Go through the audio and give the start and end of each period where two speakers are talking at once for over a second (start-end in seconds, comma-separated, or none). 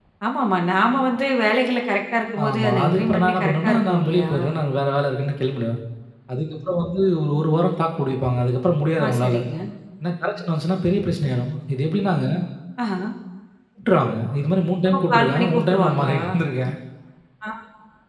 2.5-4.3, 14.8-16.2